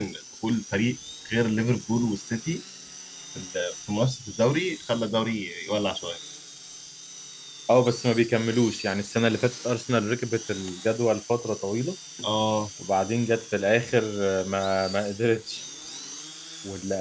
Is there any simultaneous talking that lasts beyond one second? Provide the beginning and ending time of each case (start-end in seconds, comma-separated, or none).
none